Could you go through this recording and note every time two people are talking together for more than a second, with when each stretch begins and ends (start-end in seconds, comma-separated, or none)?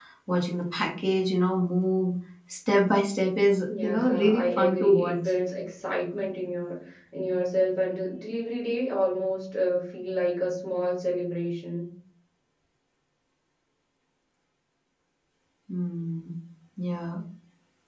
3.8-5.3